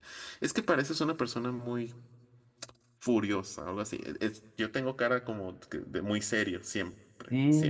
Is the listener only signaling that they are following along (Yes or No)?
No